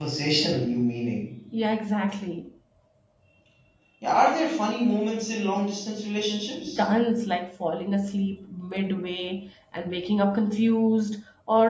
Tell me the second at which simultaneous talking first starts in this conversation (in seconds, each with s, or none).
none